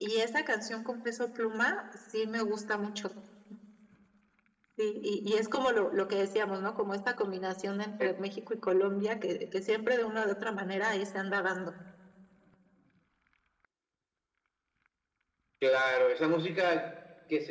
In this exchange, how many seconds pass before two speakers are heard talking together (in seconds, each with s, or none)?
none